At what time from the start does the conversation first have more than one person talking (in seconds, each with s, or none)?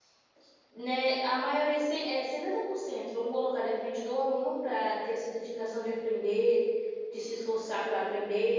none